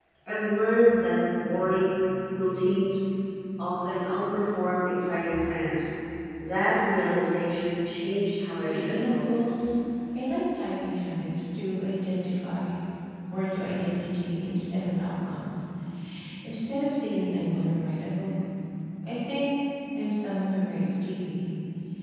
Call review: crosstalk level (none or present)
present